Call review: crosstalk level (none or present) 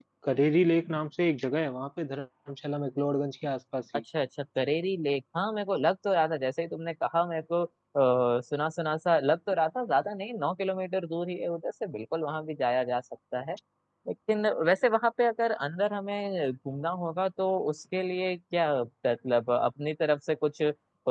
none